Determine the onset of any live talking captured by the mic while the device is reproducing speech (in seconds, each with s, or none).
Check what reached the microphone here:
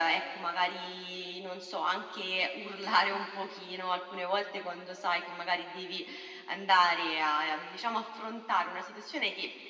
none